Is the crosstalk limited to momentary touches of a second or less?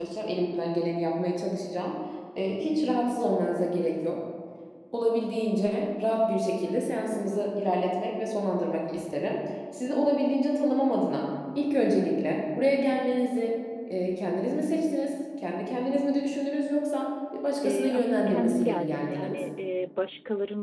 No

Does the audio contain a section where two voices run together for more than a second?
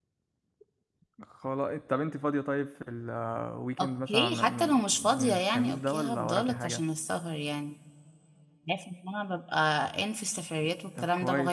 Yes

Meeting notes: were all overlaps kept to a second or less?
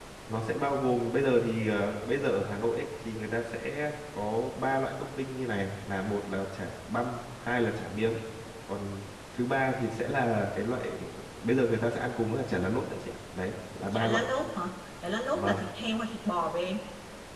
Yes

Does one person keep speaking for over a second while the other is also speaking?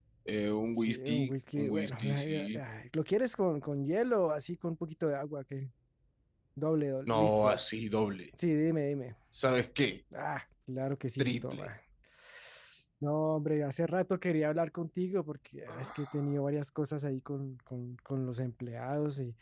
Yes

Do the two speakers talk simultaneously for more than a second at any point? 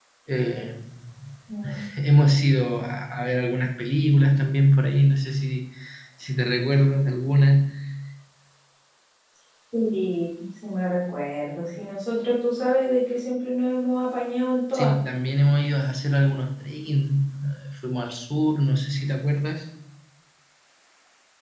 No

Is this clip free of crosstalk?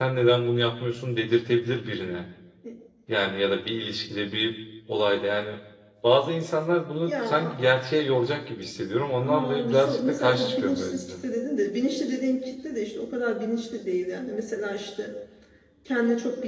No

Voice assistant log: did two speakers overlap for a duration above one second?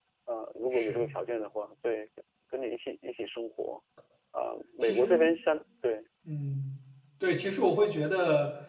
No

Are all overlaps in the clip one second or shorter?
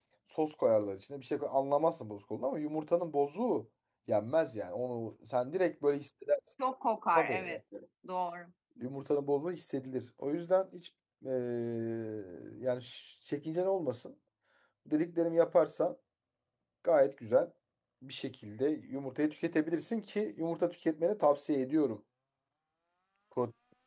Yes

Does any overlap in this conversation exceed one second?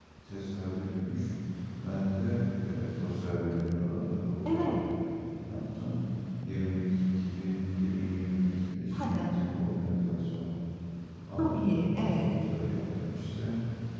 No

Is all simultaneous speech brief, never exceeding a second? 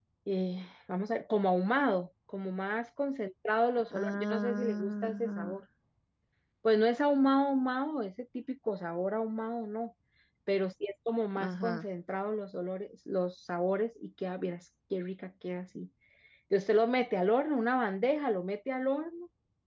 No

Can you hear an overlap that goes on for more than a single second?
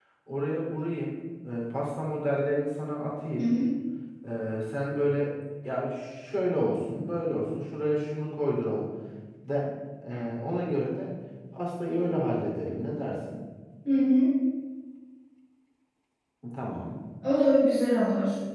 No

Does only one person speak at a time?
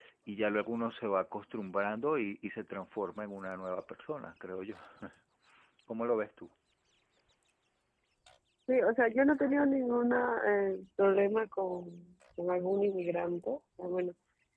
Yes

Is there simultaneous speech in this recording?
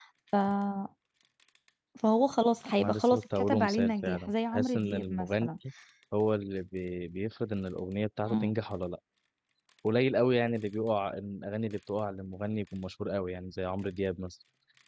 Yes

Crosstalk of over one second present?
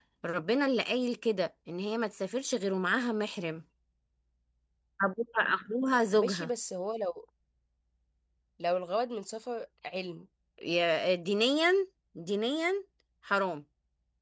No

